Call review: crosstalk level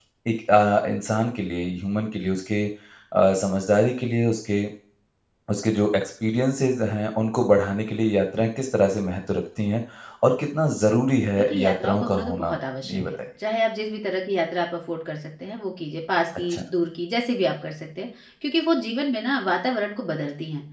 present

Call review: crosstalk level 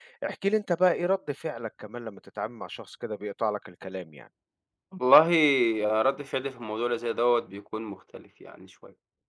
none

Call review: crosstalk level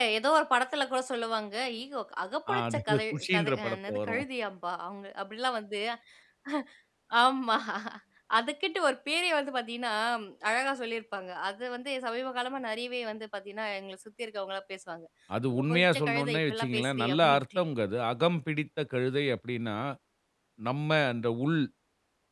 present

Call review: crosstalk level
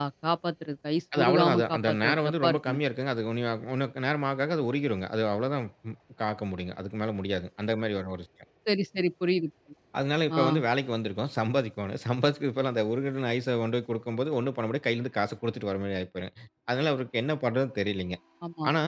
present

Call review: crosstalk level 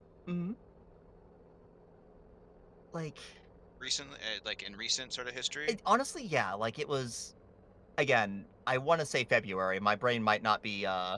none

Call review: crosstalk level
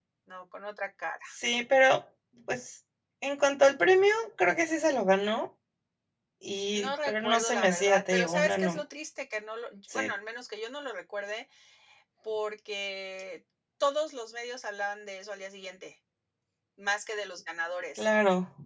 present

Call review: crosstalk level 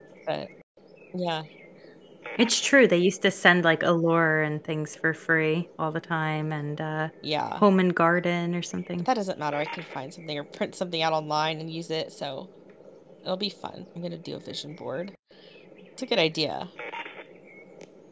none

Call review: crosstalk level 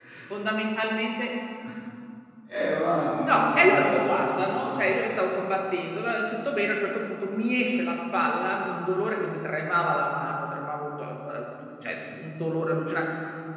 present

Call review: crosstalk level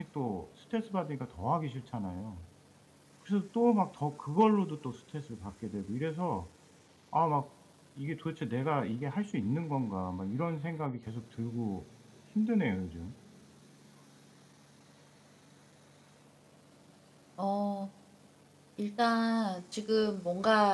none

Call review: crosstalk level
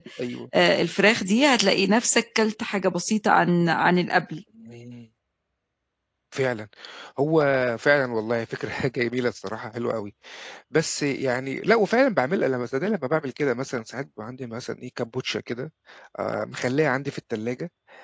none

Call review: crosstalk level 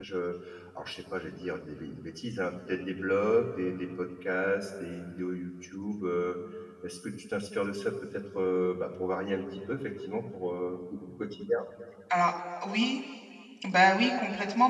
none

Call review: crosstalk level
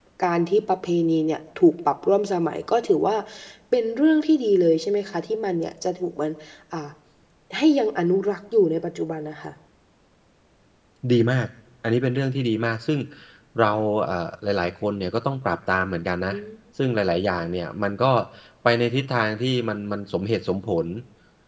none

